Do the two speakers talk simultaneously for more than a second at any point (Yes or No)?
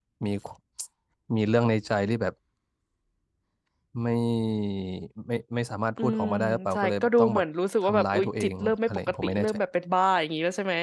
Yes